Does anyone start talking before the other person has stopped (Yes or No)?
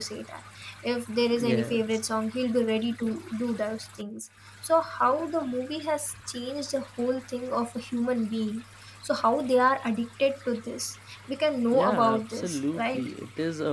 Yes